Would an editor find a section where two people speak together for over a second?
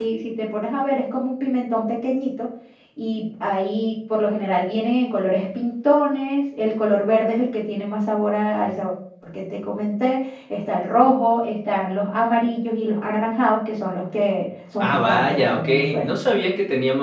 Yes, from 14.8 s

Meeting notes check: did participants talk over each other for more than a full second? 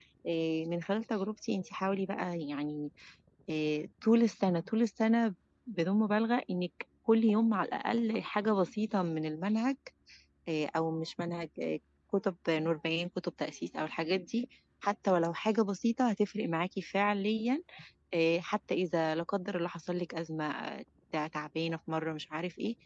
No

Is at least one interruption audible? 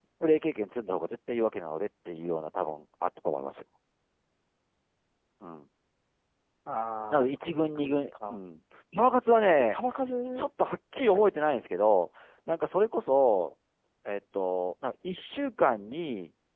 Yes, from 7.1 s

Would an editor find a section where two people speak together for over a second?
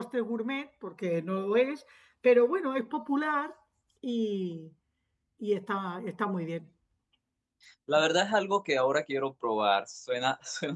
No

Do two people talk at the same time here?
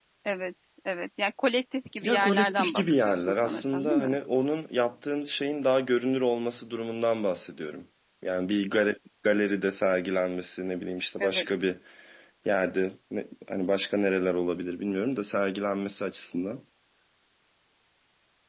Yes, from 2.0 s

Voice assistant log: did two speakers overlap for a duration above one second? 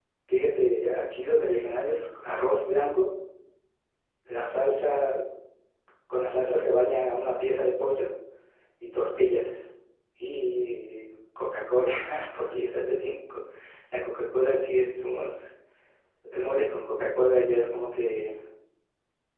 No

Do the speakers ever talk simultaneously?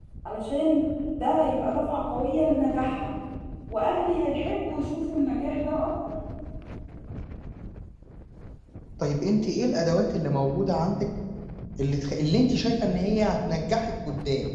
No

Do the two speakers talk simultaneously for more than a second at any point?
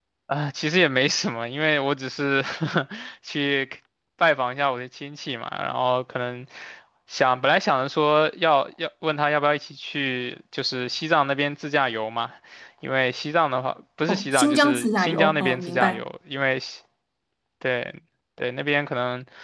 Yes, from 14.1 s

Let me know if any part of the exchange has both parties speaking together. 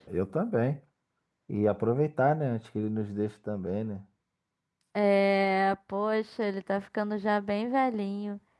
No

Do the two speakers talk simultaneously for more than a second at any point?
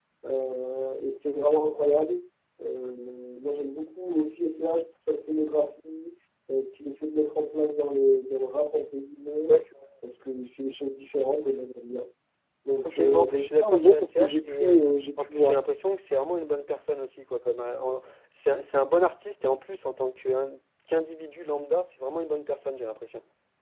Yes, from 12.8 s

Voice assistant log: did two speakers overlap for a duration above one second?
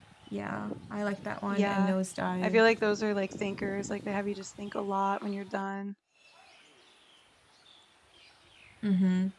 No

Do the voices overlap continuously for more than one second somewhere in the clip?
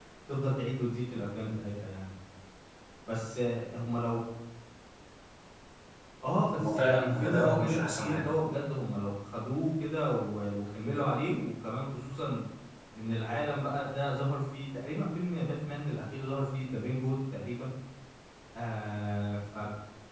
Yes, from 6.6 s

